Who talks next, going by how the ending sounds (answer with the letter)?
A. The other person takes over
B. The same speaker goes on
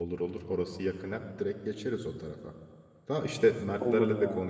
B